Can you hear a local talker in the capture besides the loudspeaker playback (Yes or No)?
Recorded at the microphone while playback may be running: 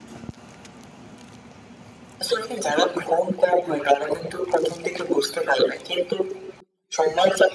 No